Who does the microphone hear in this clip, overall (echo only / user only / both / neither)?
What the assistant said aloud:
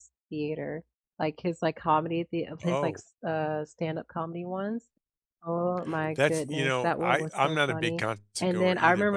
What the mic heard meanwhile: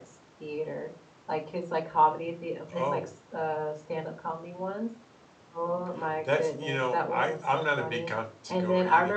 echo only